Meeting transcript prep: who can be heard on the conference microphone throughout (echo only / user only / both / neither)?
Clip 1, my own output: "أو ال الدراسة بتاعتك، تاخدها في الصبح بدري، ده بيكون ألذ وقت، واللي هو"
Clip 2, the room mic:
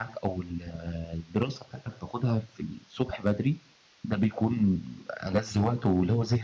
echo only